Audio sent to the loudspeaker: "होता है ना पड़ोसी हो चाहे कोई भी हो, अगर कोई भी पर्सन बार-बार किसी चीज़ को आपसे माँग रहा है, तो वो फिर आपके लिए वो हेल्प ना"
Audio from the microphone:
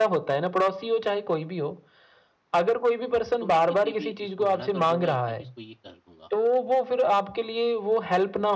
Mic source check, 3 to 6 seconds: both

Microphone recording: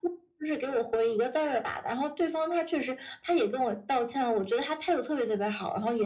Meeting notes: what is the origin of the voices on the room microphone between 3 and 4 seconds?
echo only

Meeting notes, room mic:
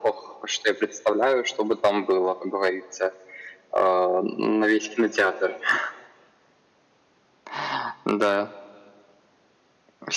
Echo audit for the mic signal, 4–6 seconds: echo only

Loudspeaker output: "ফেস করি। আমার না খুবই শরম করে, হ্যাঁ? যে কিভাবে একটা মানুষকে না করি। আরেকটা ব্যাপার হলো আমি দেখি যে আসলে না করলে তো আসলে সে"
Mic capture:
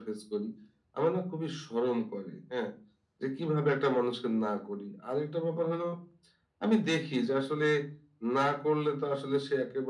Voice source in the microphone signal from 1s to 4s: echo only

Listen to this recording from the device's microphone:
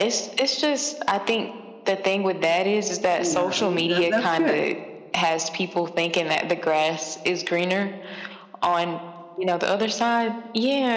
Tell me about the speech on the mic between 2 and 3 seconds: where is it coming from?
echo only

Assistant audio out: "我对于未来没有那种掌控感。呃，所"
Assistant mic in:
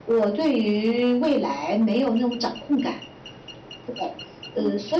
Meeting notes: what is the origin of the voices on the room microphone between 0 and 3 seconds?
echo only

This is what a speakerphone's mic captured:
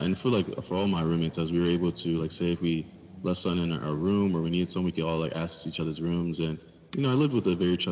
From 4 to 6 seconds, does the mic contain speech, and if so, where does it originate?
echo only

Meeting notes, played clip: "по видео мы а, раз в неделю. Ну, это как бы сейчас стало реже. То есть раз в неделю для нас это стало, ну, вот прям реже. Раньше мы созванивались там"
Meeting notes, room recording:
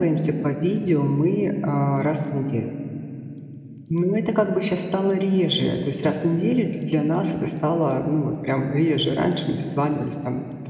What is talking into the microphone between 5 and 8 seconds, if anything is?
echo only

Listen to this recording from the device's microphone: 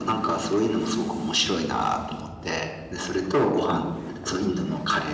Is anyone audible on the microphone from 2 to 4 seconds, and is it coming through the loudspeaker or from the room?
echo only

